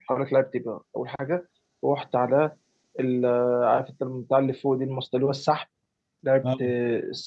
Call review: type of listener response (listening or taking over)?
listening